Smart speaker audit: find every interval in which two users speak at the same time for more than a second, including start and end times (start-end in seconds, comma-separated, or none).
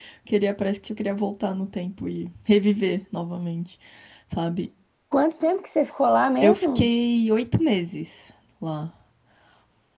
none